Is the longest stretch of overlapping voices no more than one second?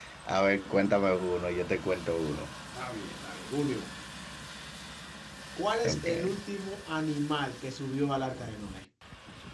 Yes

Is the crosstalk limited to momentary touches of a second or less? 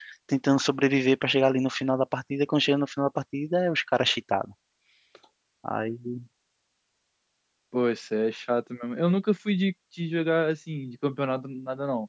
Yes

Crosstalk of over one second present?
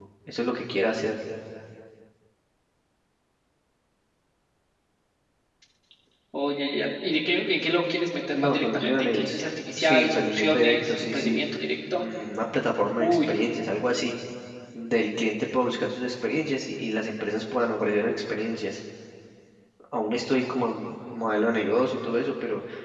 Yes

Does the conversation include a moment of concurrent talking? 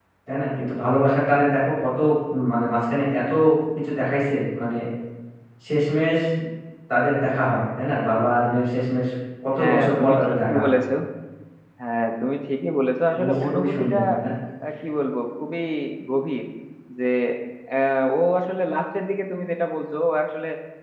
Yes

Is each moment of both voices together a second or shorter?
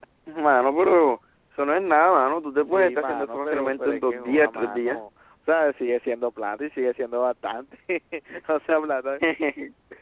No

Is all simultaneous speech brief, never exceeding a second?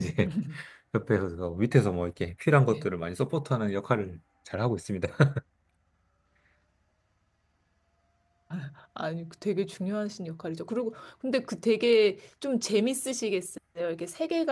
Yes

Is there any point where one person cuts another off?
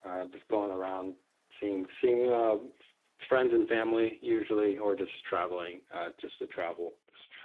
No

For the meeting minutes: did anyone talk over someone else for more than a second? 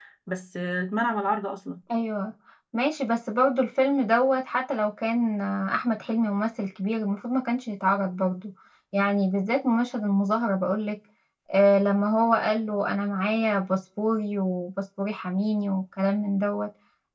No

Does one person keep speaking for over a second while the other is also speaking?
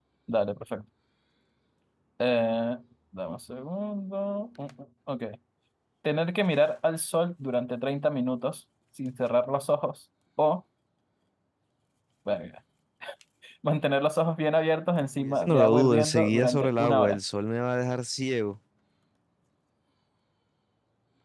Yes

